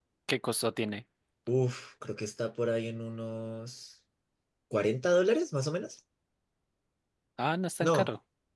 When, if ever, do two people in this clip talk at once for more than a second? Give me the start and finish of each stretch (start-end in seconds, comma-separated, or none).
none